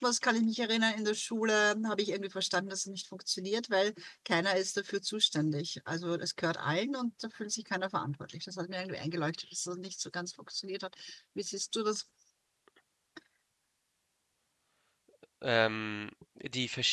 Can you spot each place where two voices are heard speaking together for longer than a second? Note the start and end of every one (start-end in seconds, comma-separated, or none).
none